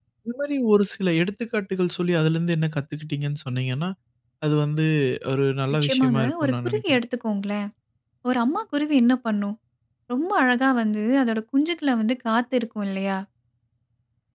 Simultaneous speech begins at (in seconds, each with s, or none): 5.7 s